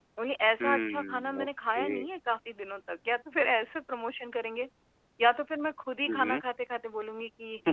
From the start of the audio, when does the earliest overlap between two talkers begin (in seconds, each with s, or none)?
0.6 s